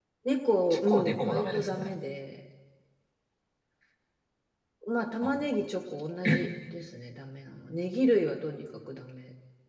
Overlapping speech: Yes, from 0.7 s

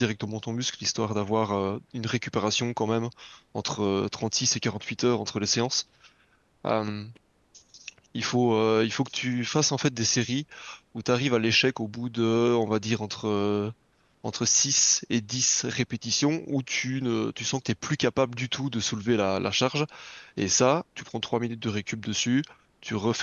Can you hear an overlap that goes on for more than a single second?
No

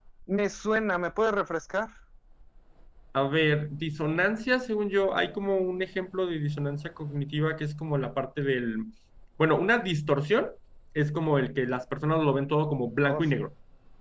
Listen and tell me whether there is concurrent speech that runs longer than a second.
No

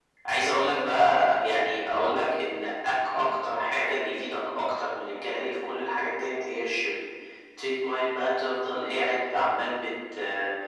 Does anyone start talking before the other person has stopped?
No

